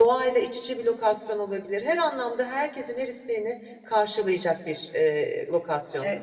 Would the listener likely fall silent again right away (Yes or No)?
No